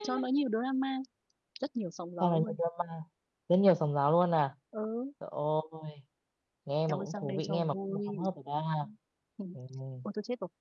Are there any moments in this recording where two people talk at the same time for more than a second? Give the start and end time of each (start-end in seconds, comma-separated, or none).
6.9-8.2